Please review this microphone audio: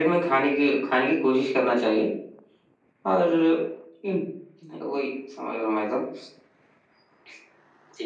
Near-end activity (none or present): none